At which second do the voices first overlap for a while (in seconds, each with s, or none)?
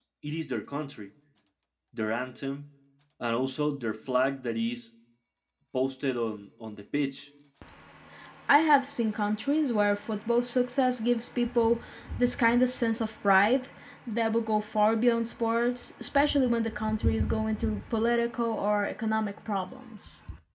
none